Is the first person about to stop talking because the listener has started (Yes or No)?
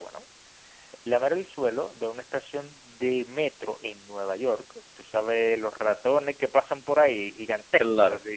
No